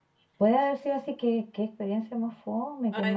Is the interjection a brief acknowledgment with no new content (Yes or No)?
No